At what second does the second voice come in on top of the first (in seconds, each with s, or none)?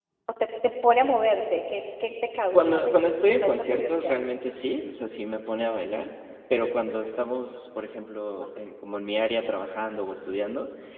2.5 s